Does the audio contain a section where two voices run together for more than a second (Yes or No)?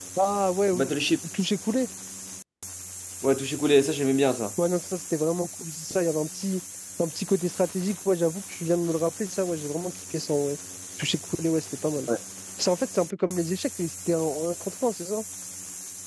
No